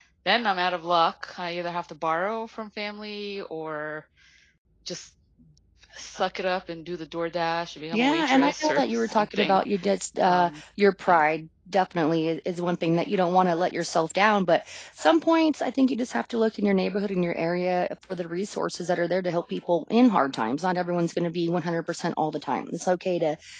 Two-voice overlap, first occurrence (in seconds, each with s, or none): 7.9 s